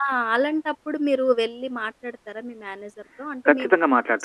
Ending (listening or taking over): taking over